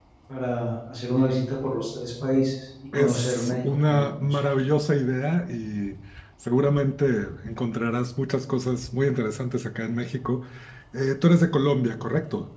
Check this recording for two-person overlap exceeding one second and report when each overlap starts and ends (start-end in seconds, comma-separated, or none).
2.9-4.4